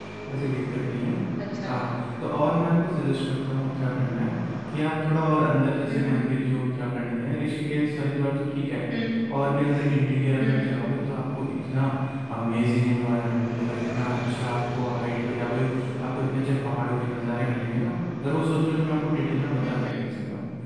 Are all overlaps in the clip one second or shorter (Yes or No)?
Yes